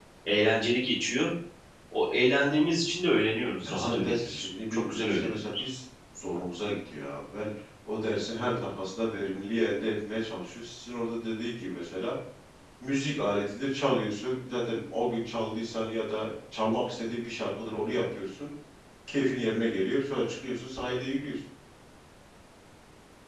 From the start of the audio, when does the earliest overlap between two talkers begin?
3.6 s

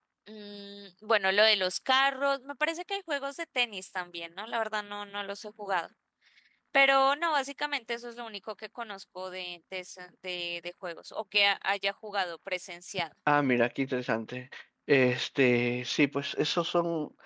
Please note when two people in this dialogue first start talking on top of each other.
none

